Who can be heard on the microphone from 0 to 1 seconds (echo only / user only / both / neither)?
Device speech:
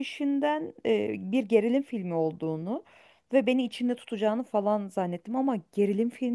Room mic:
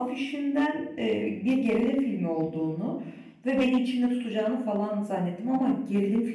echo only